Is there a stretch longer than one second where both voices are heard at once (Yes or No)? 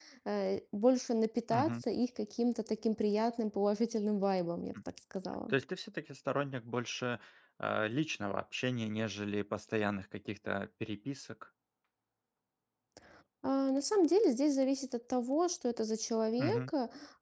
No